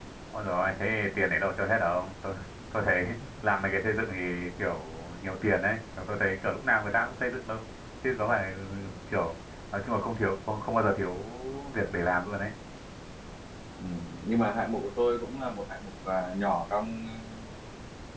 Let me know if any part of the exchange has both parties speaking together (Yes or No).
No